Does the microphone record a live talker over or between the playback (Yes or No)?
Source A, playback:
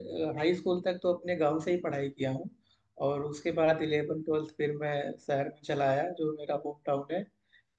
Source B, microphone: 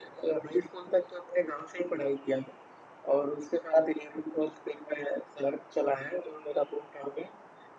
No